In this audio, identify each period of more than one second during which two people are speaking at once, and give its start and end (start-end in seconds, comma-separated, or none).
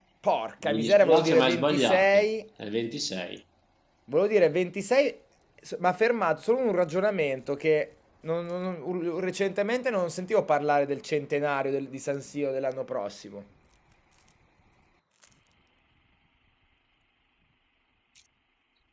0.7-2.2